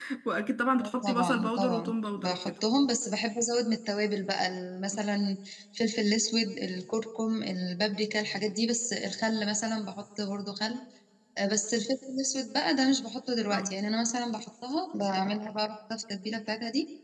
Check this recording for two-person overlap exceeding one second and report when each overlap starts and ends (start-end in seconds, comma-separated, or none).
0.8-2.5